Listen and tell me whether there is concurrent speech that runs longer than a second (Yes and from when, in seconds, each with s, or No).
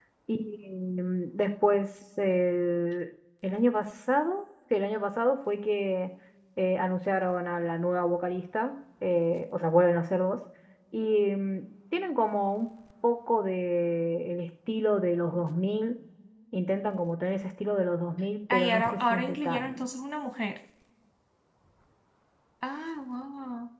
Yes, from 18.5 s